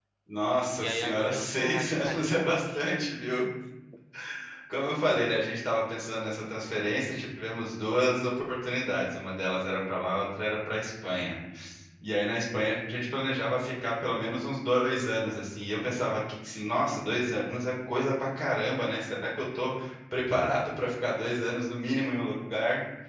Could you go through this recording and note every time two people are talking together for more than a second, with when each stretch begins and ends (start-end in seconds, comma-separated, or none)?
0.7-2.5